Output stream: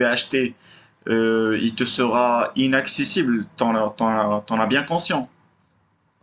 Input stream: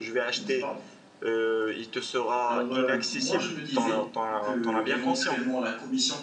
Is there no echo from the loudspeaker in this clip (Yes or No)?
No